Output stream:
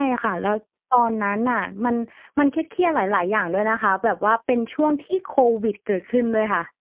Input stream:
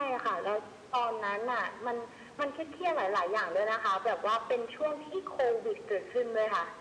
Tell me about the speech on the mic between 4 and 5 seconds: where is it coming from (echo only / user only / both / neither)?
echo only